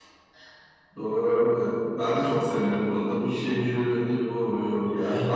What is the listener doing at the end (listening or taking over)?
listening